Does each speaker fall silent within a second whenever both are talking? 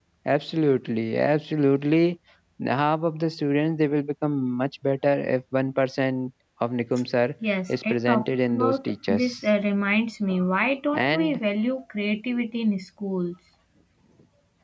No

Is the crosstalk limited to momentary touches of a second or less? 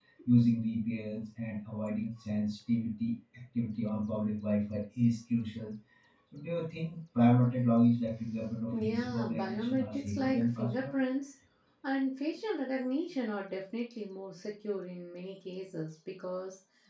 No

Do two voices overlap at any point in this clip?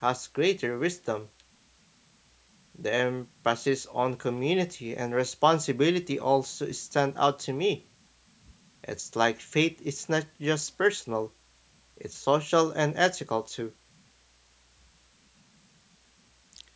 No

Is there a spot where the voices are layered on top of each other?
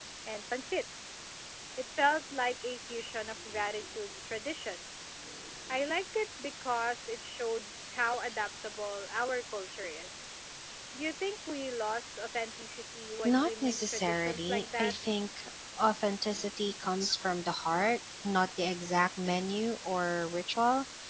Yes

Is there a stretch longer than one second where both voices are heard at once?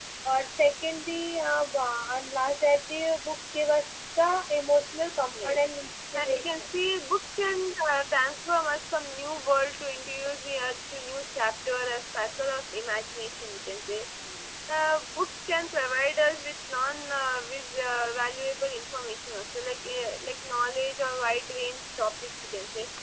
No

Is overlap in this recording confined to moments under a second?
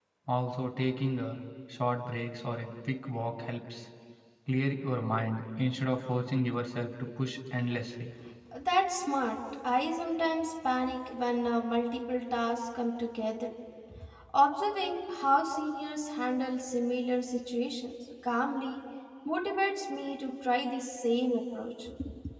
Yes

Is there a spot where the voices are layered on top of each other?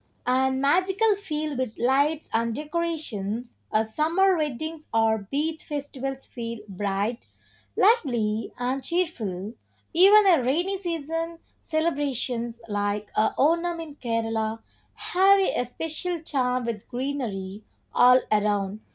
No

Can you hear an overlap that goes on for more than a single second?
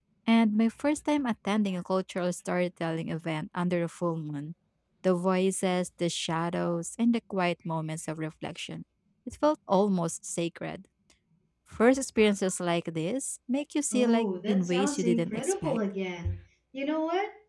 Yes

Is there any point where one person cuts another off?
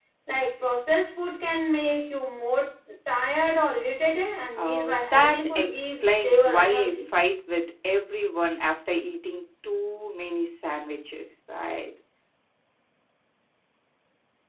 Yes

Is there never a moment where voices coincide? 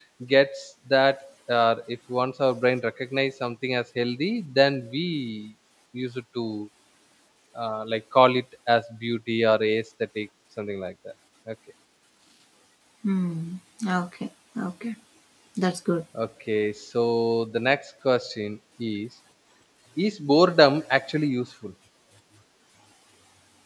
Yes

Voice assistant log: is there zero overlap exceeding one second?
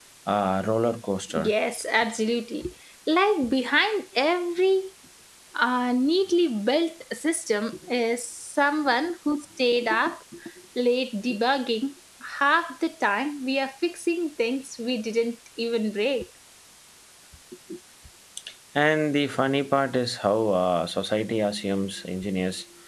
Yes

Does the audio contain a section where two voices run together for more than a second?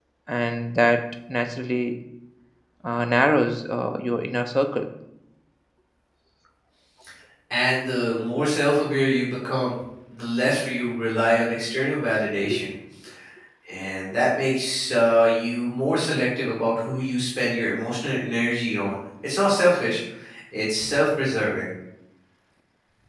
No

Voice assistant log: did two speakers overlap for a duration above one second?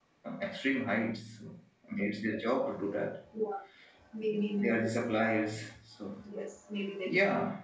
No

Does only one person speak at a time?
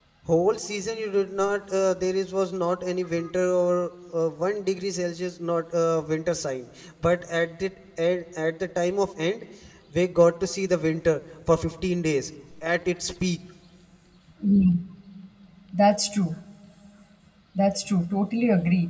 Yes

